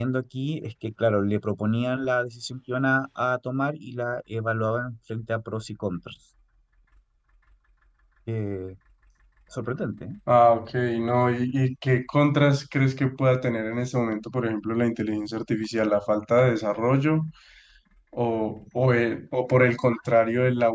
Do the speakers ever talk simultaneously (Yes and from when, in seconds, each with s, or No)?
No